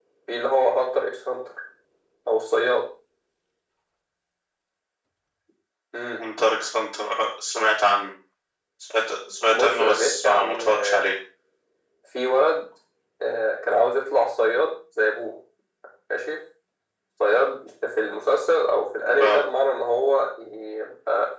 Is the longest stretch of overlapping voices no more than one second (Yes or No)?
No